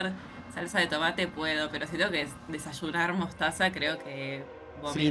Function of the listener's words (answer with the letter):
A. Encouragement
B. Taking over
B